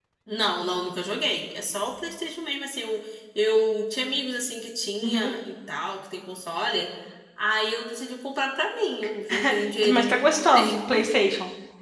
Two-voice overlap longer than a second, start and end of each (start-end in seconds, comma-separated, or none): 9.9-11.1